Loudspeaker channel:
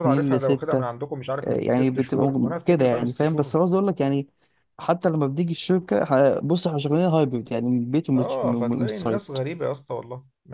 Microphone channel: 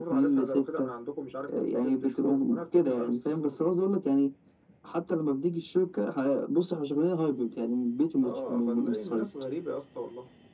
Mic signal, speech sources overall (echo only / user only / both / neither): echo only